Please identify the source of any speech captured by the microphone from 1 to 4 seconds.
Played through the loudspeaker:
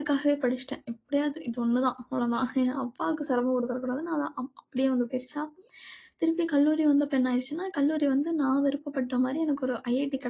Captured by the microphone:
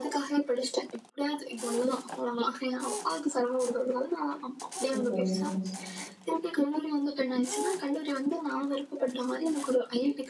echo only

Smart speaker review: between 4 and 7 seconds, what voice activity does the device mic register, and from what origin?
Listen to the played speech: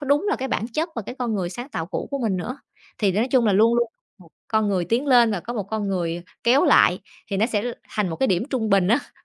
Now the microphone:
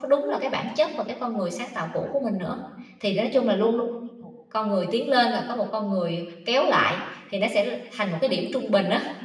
echo only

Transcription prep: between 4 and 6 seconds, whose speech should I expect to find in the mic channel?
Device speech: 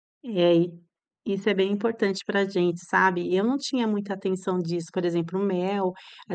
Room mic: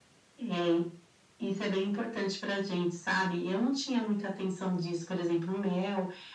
echo only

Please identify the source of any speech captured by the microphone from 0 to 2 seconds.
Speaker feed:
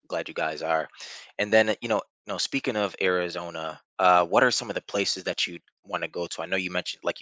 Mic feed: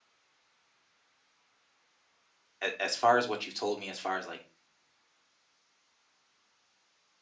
neither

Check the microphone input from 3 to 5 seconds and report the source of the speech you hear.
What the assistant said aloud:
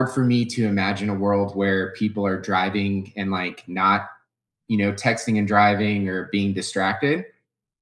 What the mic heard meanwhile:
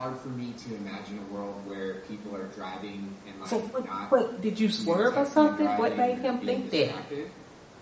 both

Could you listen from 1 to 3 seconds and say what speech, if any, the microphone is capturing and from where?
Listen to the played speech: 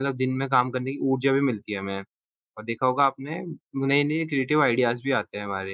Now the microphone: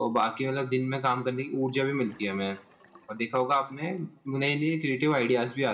echo only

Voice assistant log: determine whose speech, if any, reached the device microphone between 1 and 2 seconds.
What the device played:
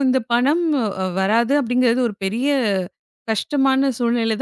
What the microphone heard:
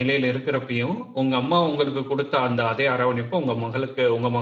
user only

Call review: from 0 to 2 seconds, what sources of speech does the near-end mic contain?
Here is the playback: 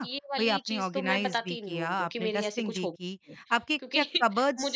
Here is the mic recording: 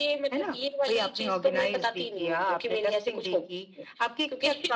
echo only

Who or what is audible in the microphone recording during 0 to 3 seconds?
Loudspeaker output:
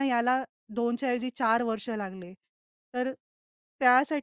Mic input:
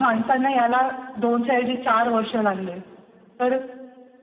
echo only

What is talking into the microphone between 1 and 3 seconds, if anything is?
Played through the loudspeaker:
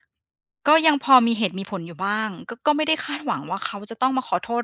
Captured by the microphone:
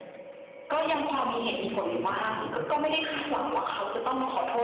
both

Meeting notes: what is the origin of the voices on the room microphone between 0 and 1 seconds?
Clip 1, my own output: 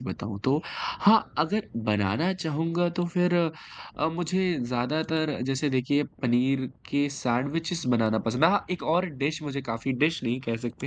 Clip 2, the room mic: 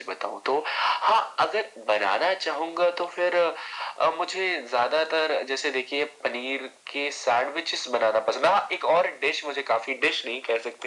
echo only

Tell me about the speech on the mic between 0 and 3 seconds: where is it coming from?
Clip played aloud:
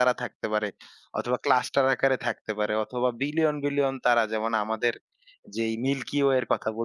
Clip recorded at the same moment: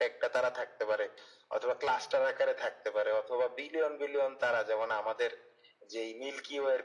echo only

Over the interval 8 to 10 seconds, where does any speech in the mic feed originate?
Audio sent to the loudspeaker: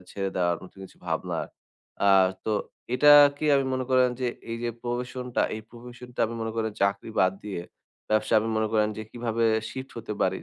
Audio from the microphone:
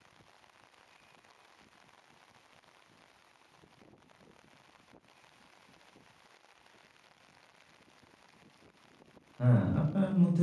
user only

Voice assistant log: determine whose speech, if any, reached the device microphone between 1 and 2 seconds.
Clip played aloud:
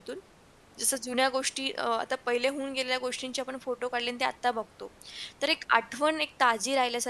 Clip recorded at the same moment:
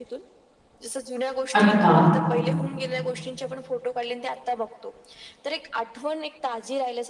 both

